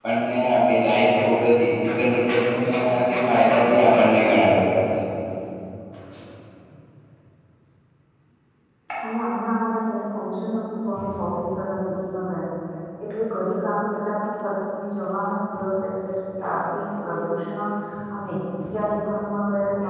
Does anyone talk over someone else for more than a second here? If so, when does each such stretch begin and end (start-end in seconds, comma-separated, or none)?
none